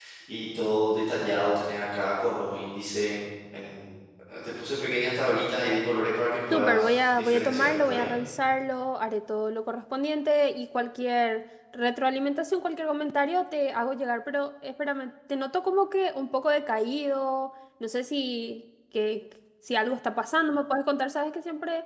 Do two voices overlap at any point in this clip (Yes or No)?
Yes